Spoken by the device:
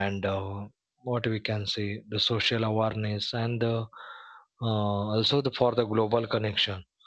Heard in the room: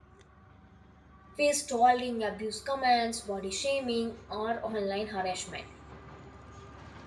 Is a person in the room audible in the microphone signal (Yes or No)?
Yes